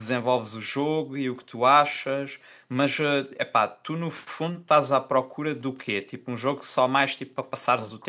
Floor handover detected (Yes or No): Yes